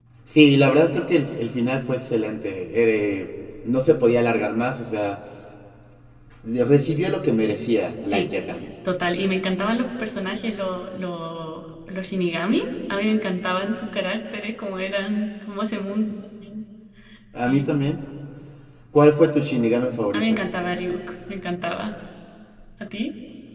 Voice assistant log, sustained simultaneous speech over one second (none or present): none